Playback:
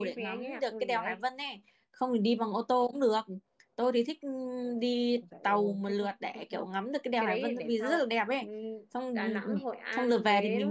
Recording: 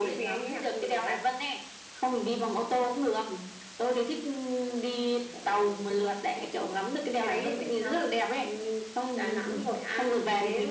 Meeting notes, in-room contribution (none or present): none